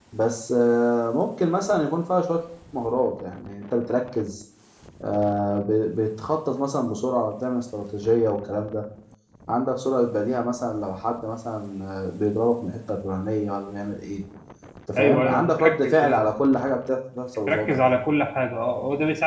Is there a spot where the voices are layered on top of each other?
Yes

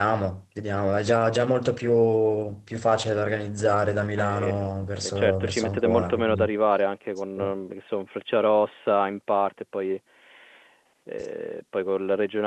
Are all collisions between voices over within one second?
No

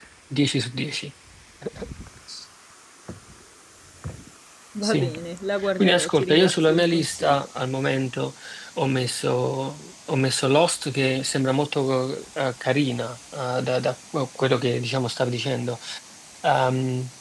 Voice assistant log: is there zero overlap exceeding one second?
No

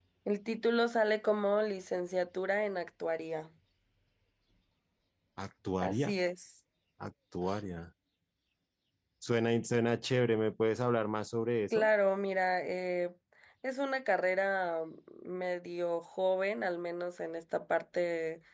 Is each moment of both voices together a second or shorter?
Yes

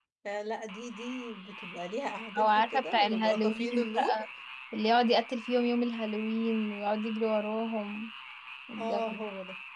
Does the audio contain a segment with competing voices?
Yes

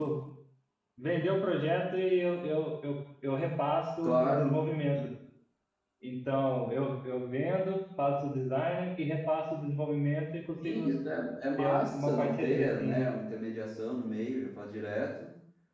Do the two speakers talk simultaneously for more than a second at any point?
Yes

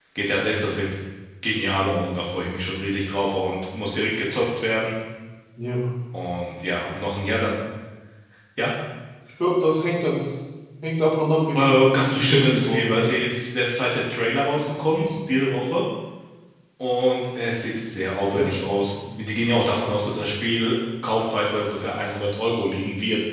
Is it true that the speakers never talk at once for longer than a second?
No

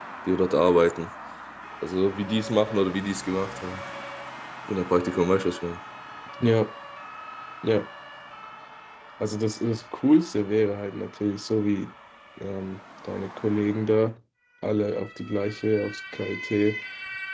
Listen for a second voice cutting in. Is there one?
No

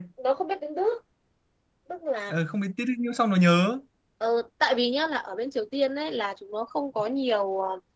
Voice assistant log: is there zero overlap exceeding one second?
Yes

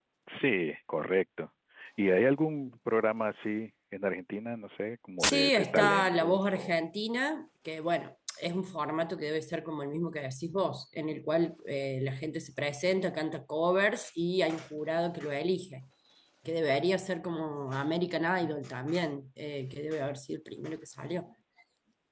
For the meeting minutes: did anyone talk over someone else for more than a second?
Yes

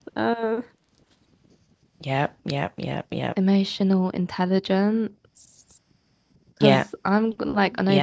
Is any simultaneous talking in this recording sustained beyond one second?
No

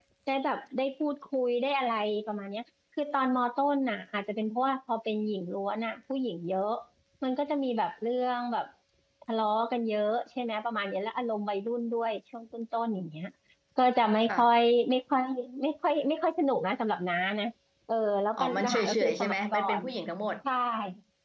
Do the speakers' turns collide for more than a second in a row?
Yes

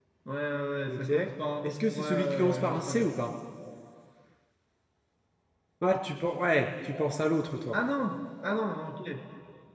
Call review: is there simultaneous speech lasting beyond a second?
Yes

